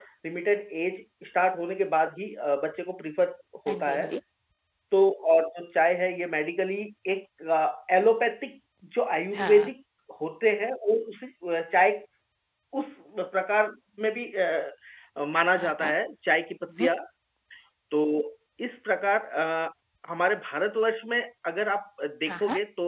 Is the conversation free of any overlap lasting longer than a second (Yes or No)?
Yes